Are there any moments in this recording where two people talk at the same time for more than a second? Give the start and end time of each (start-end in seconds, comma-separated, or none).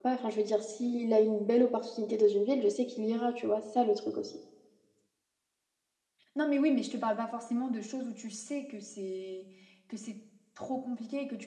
none